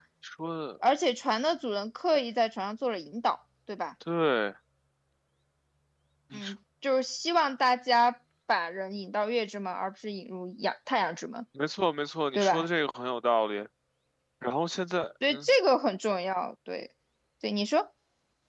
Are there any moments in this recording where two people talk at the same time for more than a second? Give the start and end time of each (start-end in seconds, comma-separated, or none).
none